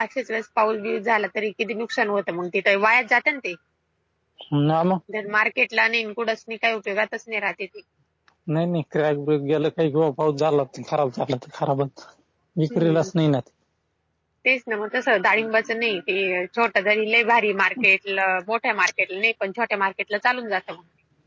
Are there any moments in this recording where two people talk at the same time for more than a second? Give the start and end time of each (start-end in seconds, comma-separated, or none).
none